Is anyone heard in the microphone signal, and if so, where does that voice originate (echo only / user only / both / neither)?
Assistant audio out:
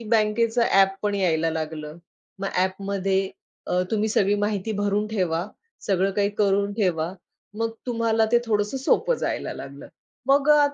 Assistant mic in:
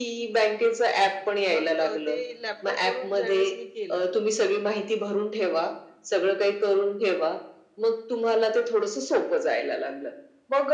both